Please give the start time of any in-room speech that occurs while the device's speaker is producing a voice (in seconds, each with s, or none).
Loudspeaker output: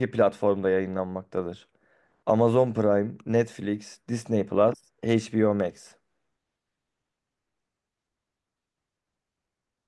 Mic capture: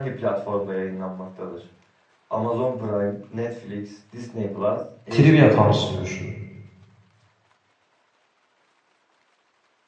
5.1 s